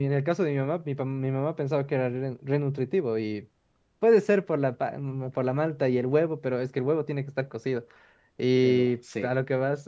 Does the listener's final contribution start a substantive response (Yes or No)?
No